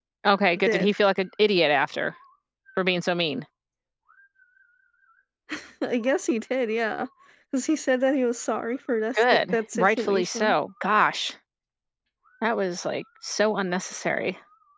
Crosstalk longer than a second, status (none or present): present